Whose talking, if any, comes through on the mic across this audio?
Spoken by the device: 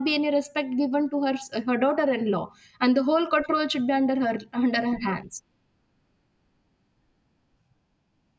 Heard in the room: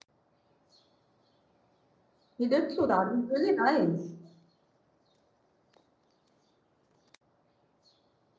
user only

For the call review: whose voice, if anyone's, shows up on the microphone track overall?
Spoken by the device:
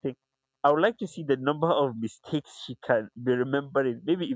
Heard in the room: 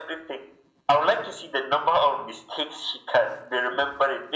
echo only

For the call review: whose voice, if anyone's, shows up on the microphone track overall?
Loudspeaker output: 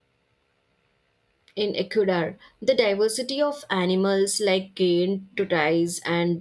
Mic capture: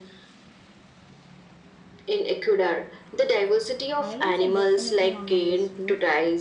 both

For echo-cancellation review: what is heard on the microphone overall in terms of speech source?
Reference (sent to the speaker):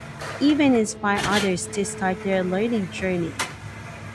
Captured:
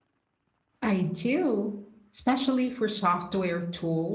user only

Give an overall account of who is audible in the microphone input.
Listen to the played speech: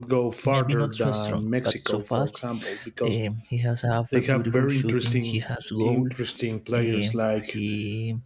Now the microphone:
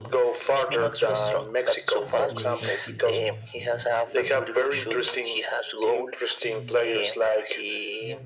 both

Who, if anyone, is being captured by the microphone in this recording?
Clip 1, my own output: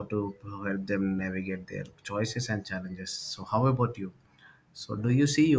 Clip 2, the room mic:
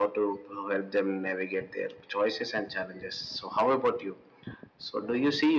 echo only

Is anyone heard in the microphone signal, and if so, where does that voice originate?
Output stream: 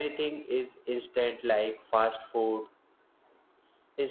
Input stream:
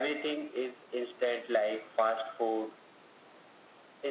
echo only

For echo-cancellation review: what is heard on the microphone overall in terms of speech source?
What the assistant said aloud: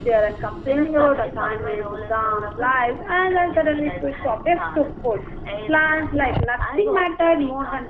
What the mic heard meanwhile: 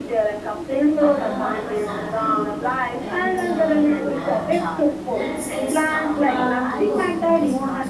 both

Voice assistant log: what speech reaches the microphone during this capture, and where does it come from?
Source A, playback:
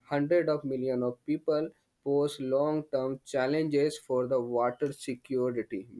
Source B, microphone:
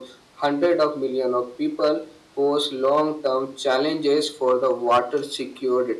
echo only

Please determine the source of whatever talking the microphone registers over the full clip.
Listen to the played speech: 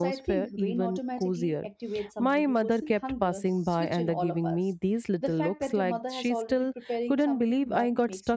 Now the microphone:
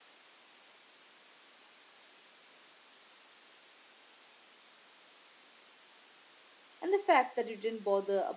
user only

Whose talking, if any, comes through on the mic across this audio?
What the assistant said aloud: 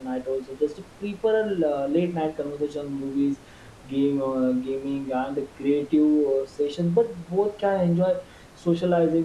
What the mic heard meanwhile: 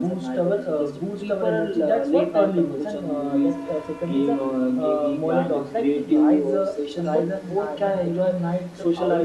both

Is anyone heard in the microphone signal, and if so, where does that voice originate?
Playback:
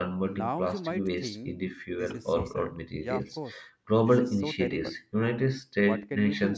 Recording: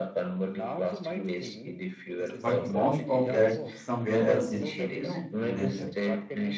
both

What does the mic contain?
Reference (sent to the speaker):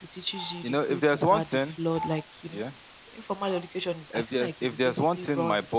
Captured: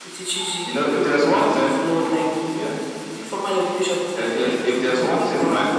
echo only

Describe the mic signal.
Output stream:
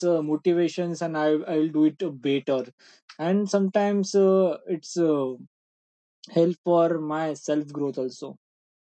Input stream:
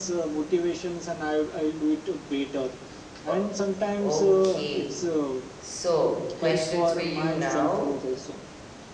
both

